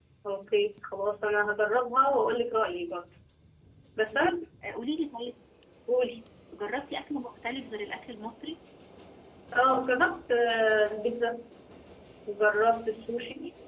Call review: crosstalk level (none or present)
none